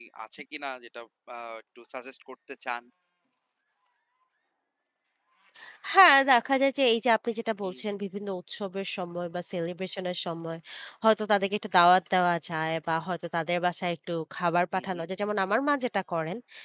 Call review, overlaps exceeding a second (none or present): none